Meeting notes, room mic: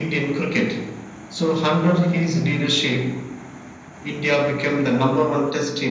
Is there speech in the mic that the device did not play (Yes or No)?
No